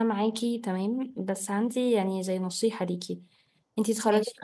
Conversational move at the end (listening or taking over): listening